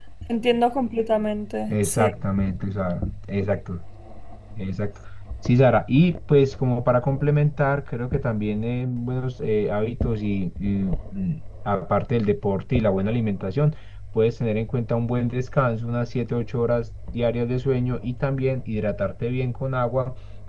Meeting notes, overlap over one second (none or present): none